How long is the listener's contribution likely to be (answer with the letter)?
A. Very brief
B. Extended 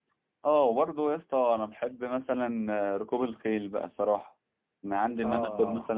A